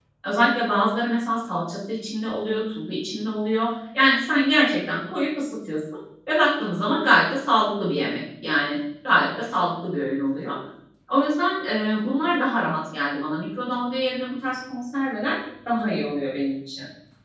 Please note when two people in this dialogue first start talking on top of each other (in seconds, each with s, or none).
none